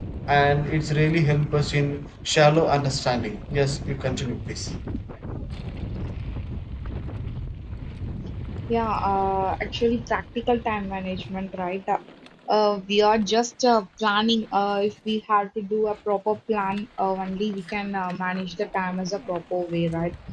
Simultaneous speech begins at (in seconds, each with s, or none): none